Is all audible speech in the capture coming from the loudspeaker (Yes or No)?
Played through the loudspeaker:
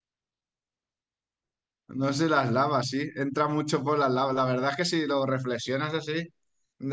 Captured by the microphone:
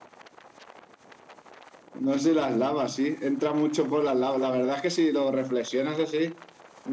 Yes